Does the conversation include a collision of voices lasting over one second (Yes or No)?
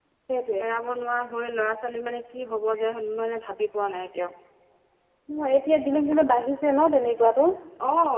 No